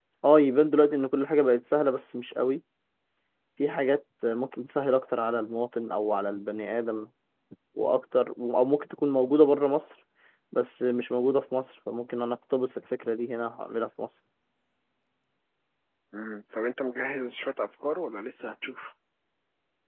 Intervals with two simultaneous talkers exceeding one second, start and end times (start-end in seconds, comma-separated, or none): none